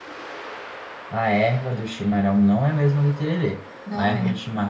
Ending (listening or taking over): listening